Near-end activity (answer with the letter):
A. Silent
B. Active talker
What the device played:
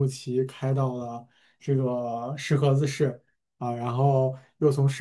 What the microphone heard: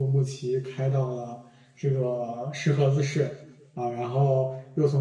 A